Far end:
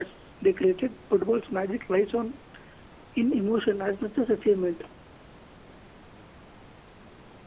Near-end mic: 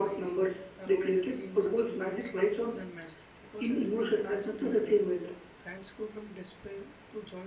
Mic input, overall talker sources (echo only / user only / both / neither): both